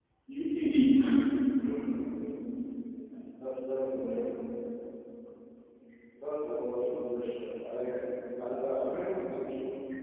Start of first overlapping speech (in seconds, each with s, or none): none